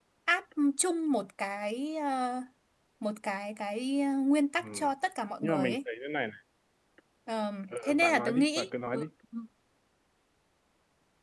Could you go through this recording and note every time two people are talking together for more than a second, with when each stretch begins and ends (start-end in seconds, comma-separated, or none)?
7.8-9.0